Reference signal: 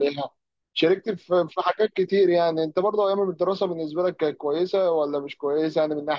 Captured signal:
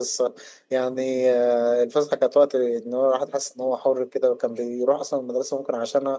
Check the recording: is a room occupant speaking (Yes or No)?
Yes